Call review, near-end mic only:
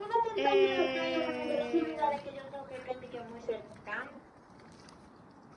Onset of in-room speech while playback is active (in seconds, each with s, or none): 0.4 s